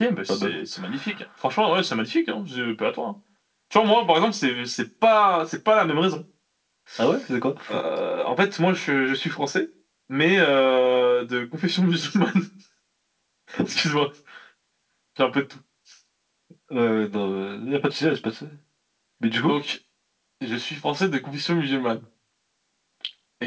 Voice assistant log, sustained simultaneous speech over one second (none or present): none